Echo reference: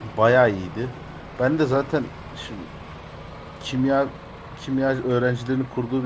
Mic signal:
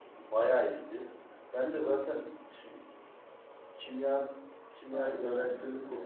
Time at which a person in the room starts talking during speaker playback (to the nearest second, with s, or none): 5 s